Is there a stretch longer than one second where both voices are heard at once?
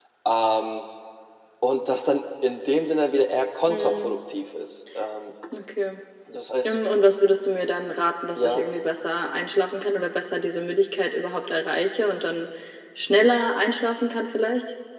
No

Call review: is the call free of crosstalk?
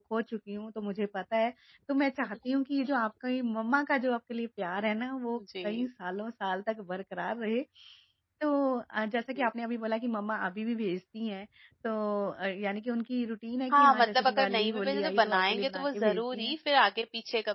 No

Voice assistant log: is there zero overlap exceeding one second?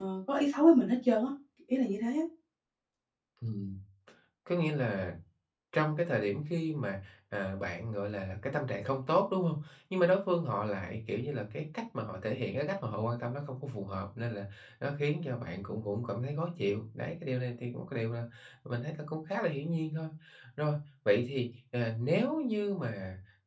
Yes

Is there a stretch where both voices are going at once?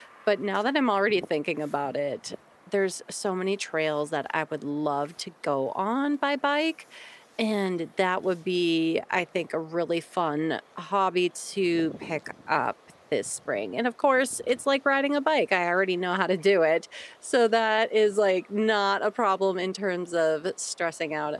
No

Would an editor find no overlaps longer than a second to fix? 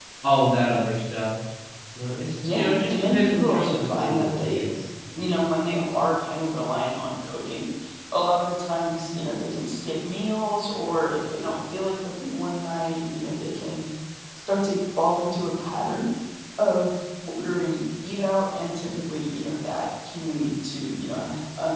No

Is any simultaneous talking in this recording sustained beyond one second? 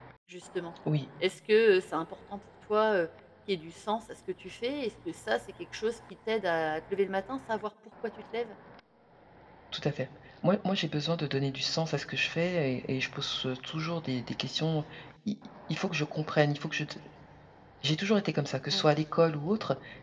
No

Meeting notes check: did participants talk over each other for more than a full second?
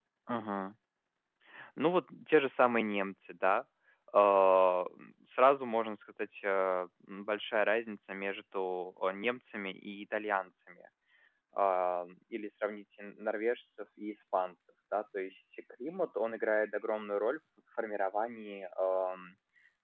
No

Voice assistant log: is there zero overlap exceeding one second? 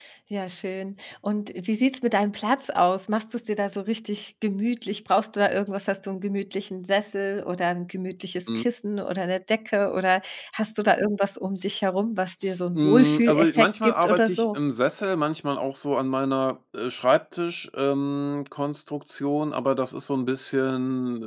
No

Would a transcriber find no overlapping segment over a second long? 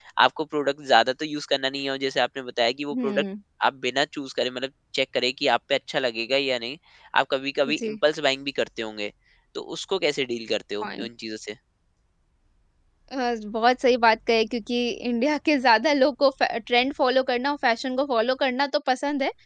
Yes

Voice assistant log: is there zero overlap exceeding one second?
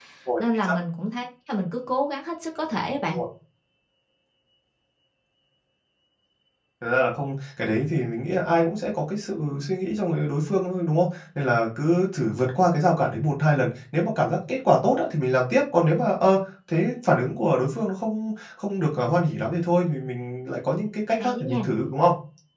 Yes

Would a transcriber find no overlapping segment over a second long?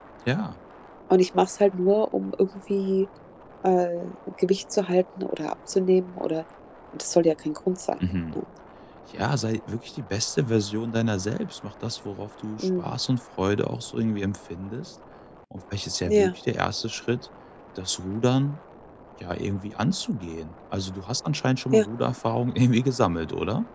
Yes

